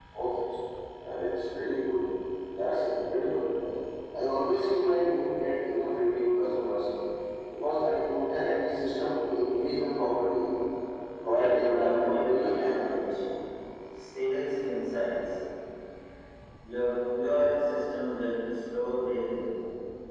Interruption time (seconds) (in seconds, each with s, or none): 11.2 s